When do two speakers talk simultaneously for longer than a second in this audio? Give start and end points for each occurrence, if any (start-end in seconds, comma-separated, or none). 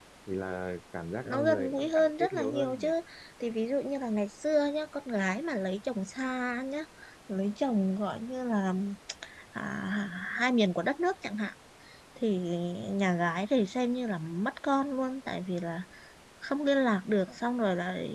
1.2-2.9